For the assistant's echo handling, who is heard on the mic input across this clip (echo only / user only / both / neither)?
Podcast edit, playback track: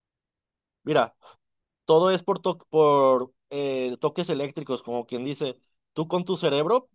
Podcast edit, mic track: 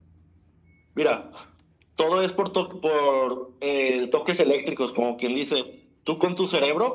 echo only